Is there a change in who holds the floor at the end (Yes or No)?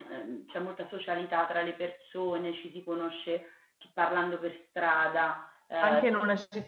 Yes